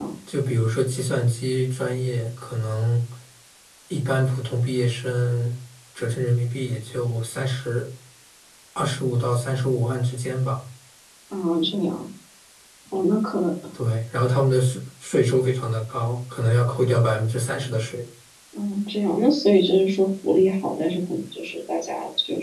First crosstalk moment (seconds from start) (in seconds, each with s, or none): none